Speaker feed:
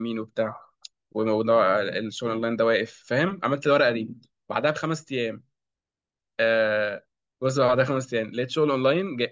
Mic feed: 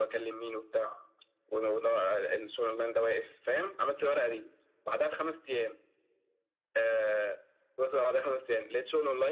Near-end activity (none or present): none